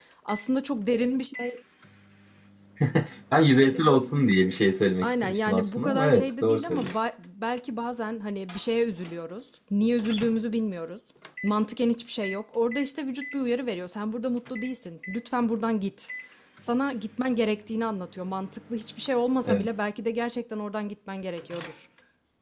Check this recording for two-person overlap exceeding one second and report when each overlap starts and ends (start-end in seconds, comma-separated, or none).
5.0-7.0